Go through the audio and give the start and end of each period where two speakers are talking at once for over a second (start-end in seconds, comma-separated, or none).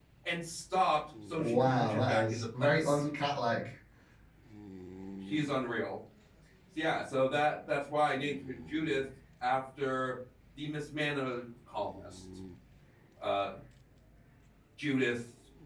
1.4-3.0